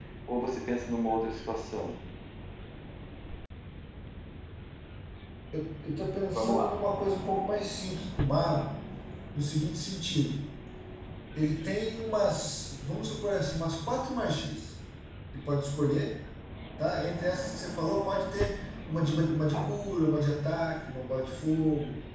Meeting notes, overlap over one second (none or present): none